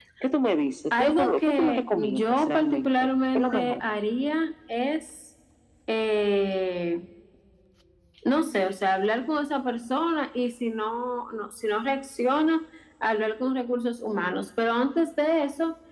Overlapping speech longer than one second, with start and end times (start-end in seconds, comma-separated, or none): 1.0-3.8